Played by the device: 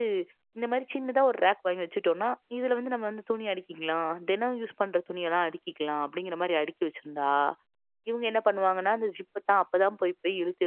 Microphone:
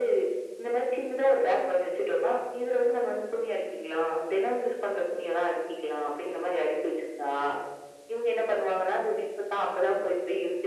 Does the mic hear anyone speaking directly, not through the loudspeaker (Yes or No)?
No